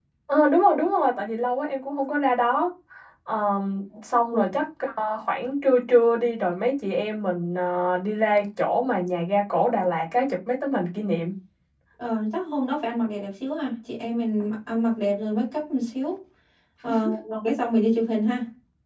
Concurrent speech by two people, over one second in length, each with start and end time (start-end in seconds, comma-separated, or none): none